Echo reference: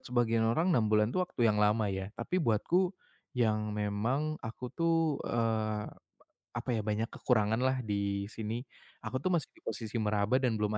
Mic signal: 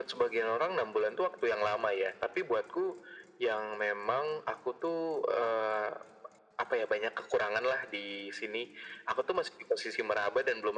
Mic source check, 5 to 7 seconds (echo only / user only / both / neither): echo only